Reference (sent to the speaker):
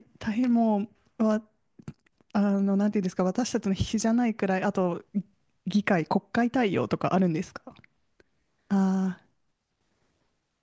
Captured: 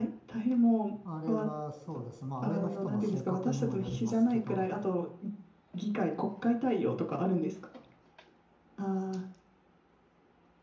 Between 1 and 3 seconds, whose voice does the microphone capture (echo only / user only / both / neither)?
both